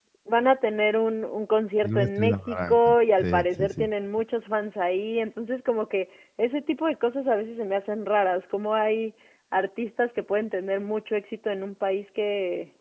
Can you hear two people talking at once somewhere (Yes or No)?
Yes